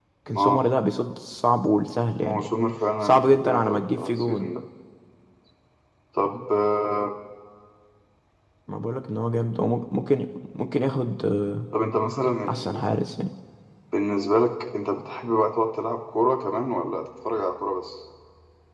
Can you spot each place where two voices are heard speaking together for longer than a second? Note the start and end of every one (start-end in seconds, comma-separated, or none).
3.0-4.5